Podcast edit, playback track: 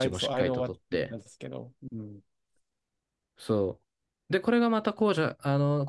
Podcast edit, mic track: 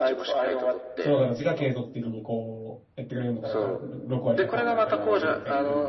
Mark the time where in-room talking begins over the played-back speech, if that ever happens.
1 s

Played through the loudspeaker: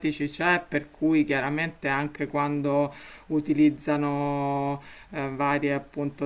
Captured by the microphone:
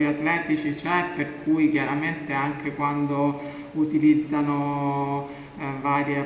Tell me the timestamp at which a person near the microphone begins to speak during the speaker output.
none

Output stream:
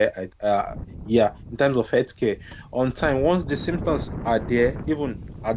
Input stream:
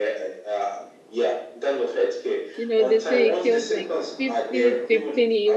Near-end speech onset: 3 s

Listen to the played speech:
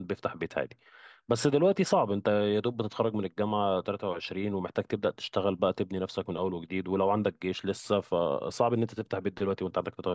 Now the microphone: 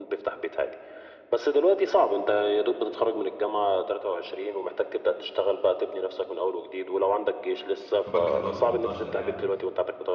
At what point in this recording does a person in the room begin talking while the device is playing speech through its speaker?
8 s

